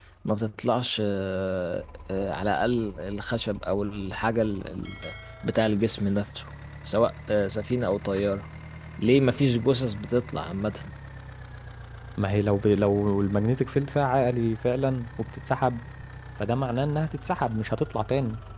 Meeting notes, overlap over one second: none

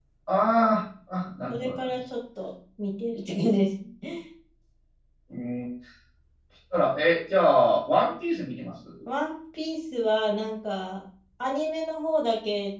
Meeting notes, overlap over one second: none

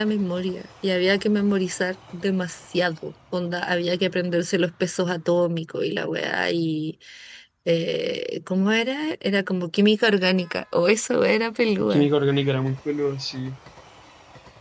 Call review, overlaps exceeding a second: none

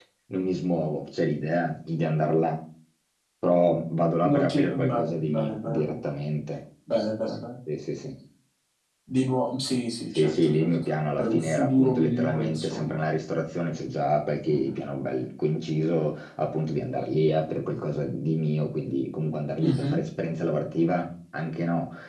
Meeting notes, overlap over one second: present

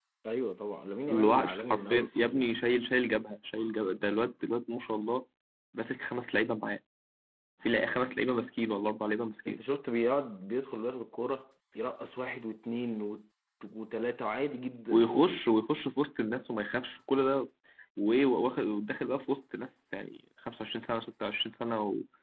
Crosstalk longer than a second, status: present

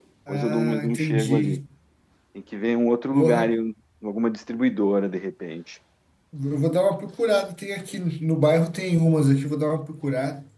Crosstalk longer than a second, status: present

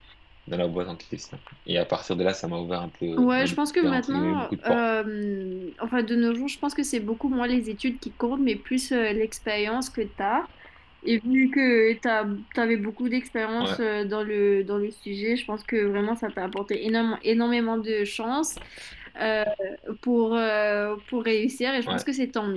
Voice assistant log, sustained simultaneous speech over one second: present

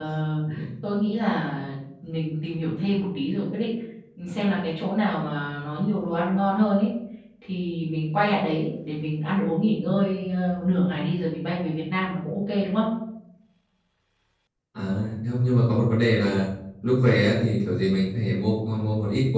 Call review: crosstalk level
none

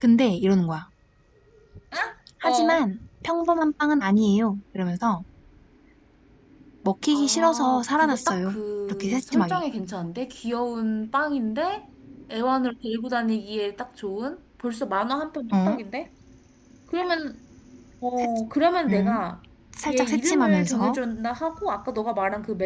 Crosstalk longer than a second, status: present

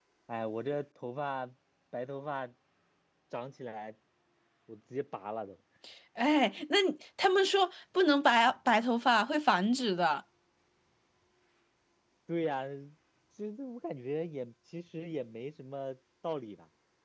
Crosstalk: none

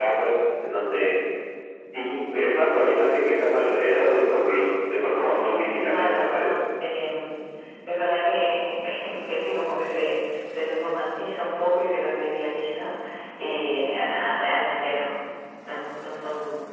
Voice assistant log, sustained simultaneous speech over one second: present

